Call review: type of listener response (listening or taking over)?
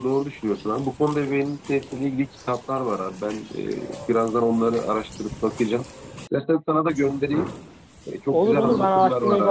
taking over